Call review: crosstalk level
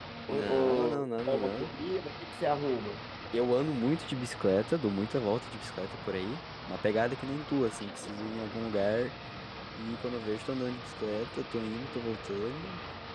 present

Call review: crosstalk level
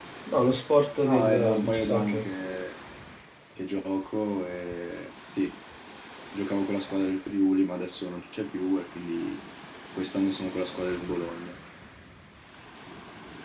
present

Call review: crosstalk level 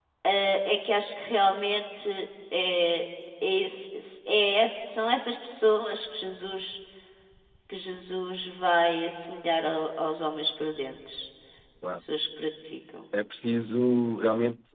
none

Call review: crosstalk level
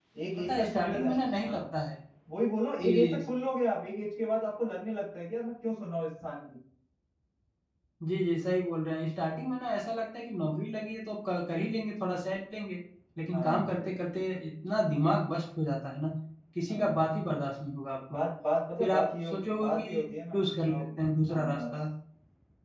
present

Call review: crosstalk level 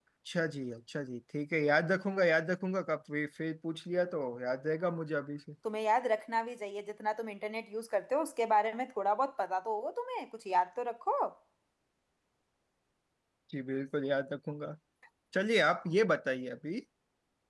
none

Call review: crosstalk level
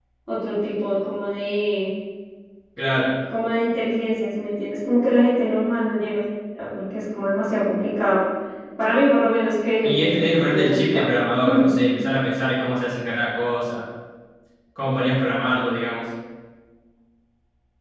present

